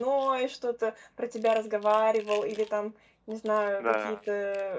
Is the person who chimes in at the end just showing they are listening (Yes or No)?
Yes